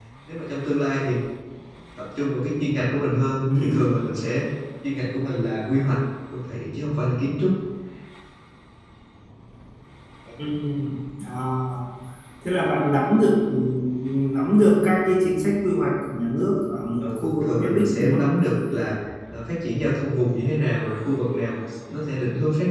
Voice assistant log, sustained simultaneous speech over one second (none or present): present